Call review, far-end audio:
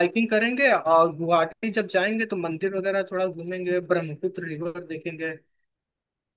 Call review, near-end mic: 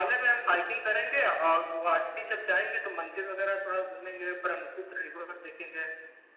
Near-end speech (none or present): none